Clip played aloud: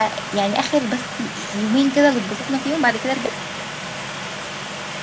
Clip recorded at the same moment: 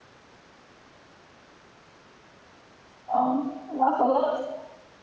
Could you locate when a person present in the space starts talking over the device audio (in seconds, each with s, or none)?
3.1 s